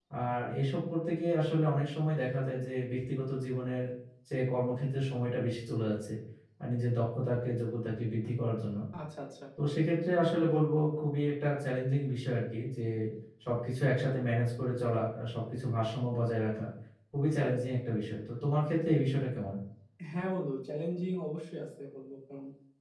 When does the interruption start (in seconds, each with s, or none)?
none